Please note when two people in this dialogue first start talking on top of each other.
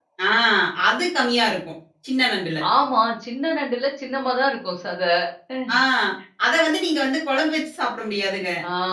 none

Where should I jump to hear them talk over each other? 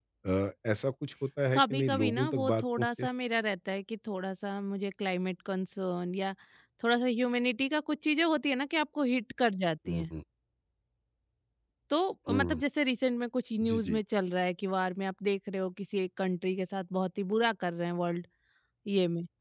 2 s

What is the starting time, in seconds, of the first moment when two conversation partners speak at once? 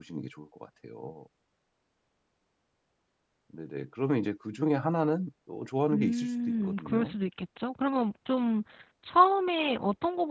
6 s

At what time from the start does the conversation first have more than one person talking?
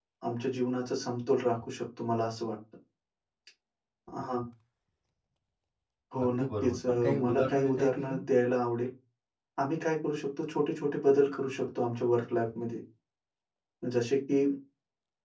6 s

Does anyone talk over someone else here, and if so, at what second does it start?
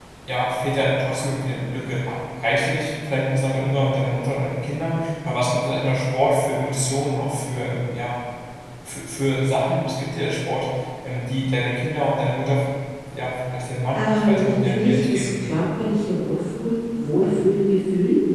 14 s

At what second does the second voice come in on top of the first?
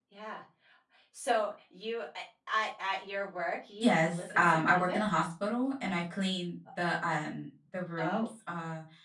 4 s

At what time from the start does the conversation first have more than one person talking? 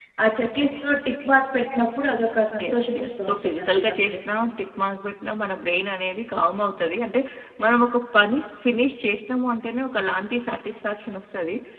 3 s

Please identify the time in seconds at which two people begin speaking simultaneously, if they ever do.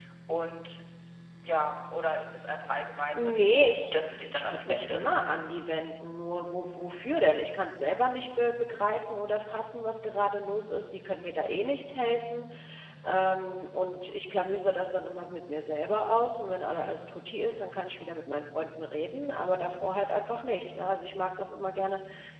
3 s

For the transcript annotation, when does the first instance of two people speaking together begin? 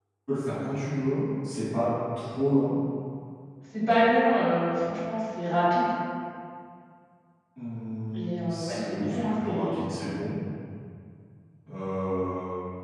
8 s

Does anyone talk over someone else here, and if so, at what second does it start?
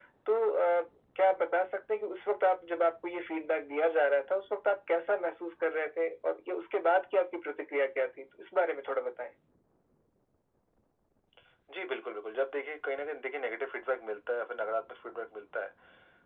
none

